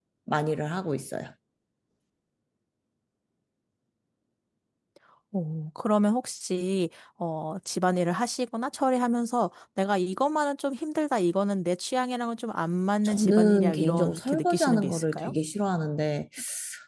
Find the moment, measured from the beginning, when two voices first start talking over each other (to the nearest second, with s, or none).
13 s